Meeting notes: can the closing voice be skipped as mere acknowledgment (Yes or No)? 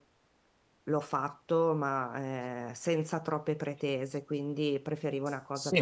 No